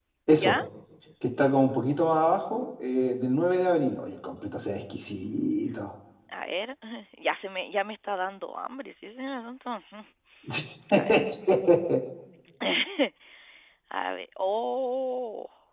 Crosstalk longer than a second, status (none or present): none